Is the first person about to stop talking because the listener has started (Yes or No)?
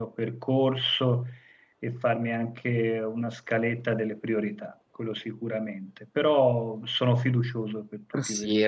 Yes